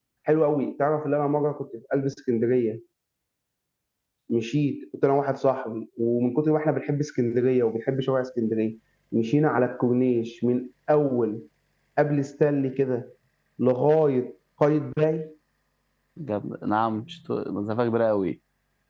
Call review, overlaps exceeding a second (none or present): none